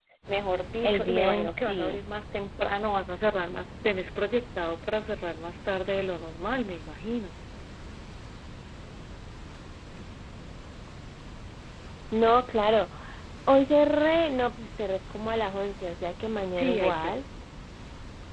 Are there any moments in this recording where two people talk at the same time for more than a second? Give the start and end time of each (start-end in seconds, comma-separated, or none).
0.8-2.0